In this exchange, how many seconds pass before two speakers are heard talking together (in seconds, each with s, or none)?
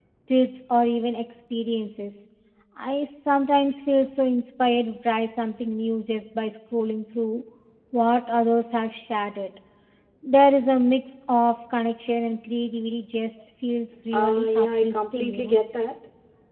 14.1 s